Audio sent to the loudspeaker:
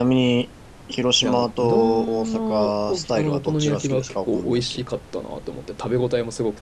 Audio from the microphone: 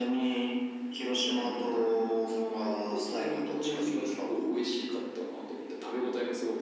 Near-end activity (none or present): none